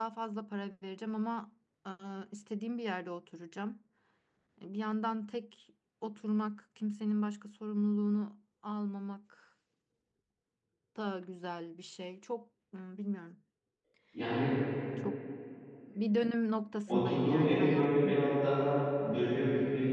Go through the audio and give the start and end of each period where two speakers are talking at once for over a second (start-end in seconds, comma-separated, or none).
16.9-18.2